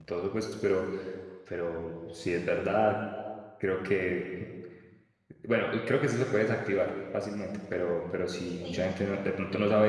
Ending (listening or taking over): listening